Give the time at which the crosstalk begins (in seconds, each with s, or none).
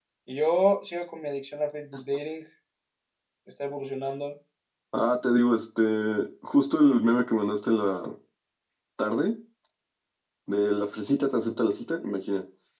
none